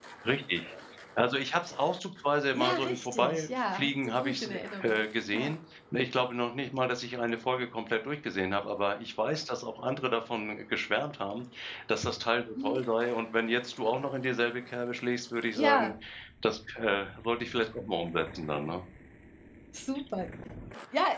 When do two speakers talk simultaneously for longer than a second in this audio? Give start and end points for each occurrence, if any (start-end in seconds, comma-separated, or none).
2.5-5.0